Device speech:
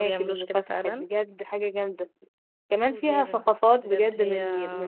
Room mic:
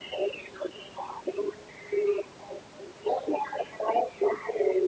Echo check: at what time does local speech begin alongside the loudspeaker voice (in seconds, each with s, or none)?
none